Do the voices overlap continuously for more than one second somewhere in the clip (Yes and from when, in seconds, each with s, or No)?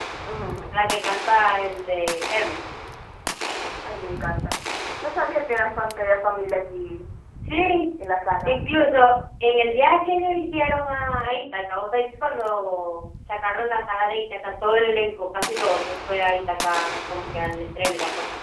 No